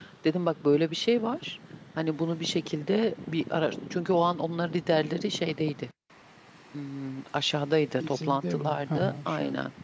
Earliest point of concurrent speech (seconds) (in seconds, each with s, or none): 8.0 s